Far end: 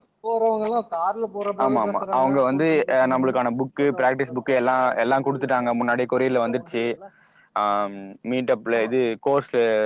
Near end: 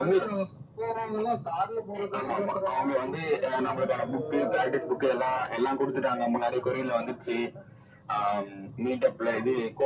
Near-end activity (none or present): present